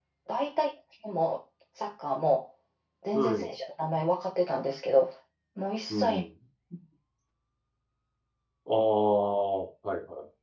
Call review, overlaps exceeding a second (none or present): none